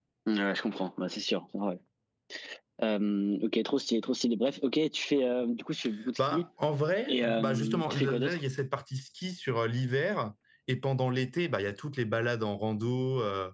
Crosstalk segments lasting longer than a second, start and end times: 7.1-8.4

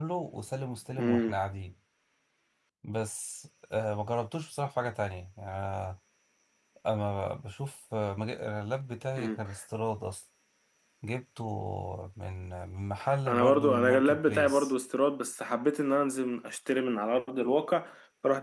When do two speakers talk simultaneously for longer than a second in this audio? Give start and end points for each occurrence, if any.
13.3-14.7

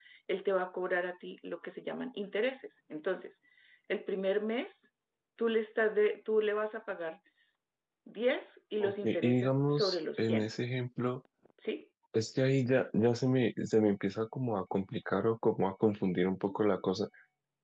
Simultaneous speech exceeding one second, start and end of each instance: 8.8-10.5

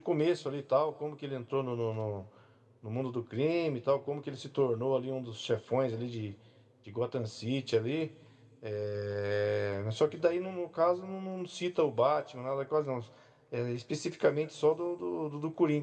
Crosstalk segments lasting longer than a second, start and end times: none

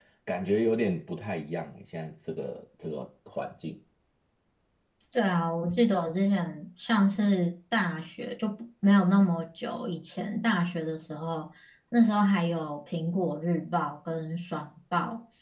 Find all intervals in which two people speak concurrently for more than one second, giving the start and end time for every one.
none

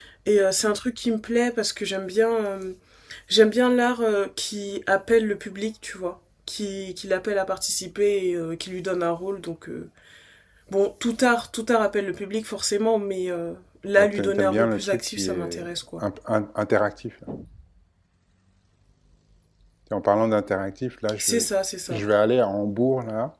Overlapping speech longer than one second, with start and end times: 14.0-15.6

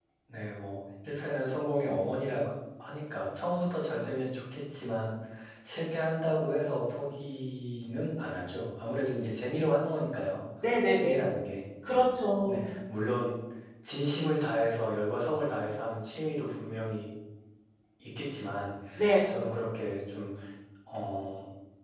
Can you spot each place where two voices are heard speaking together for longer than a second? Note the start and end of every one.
none

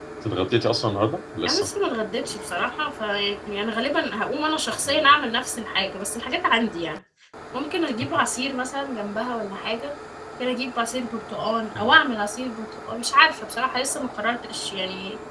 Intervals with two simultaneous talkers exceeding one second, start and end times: none

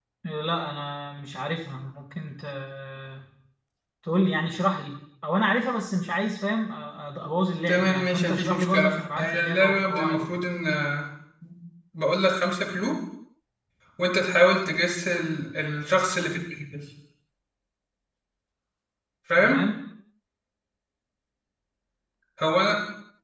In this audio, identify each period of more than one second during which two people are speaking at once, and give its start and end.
7.7-10.4

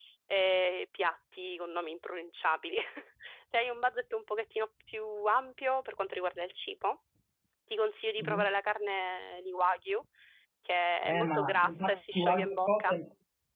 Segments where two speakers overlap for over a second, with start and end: 11.1-13.0

